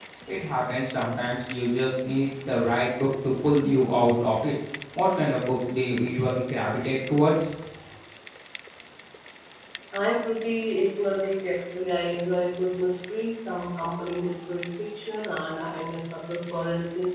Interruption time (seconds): none

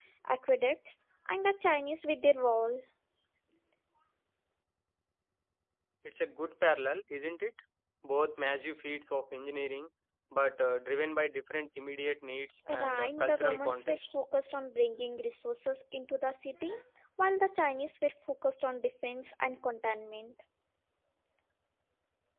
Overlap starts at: 12.7 s

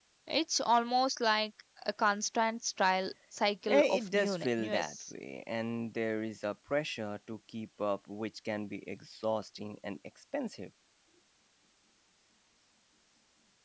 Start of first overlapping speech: 3.7 s

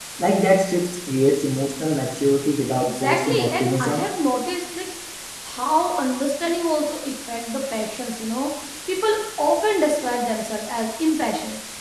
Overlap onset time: 2.8 s

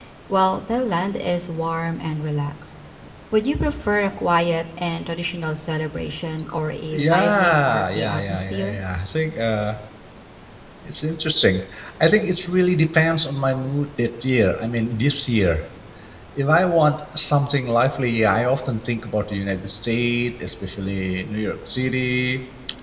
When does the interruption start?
6.9 s

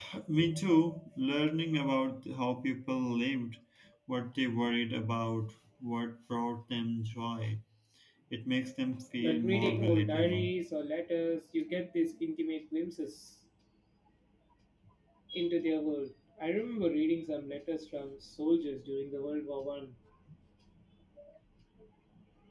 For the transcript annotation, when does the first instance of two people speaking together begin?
9.2 s

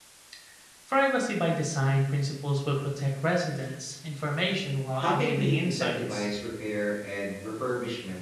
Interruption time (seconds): 5.0 s

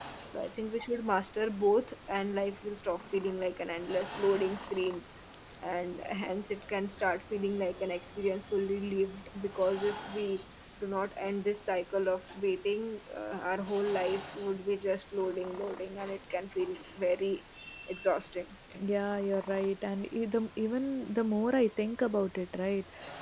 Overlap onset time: none

